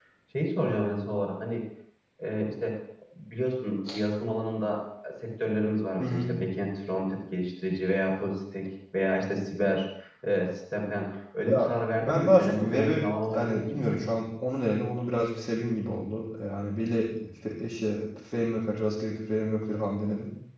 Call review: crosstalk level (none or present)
present